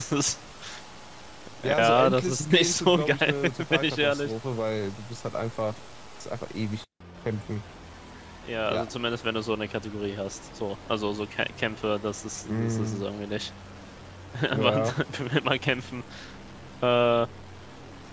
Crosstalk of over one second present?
Yes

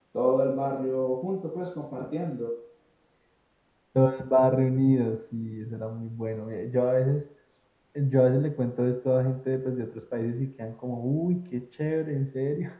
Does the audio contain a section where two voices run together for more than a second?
No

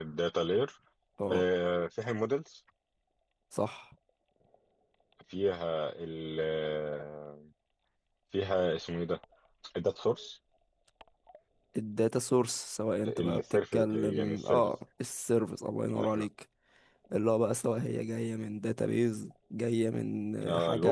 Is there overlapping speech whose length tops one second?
Yes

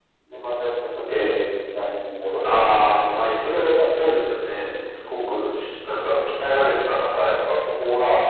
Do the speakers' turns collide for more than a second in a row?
Yes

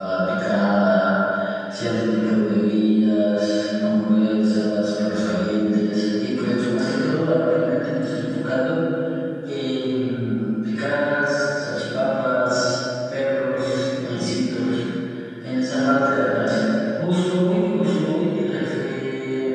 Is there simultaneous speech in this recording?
No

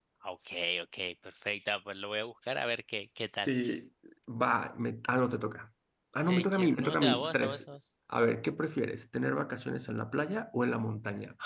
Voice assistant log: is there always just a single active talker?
No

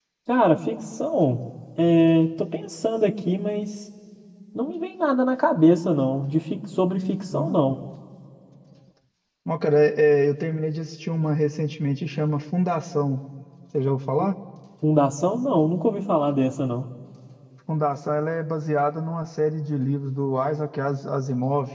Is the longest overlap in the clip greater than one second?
No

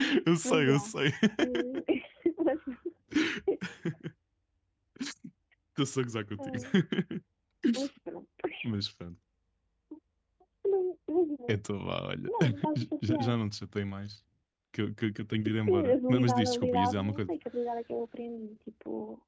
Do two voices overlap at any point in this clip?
Yes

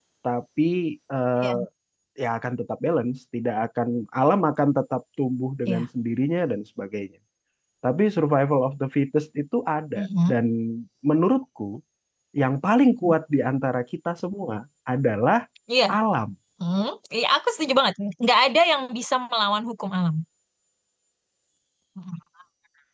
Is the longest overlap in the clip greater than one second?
No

